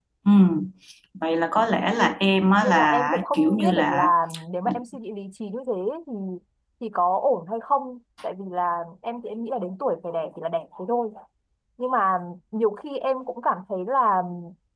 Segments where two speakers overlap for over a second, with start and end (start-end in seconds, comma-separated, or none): 2.6-4.1